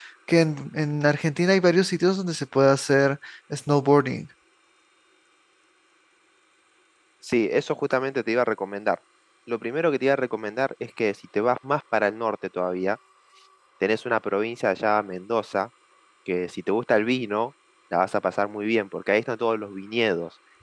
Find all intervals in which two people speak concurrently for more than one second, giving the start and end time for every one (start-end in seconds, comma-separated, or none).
none